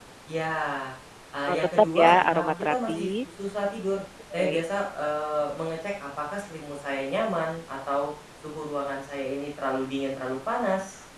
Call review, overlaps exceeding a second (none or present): present